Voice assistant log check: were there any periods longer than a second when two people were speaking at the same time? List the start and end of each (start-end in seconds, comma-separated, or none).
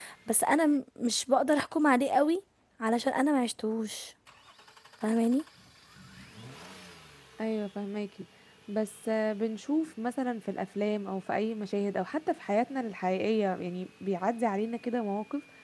none